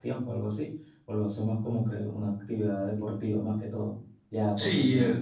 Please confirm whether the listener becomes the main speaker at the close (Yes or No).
Yes